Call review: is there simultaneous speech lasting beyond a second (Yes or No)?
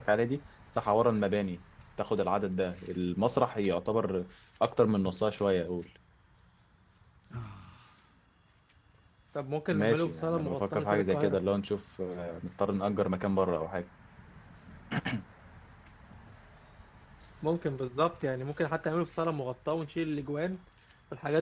Yes